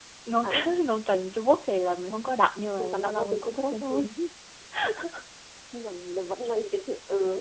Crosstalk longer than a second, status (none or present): present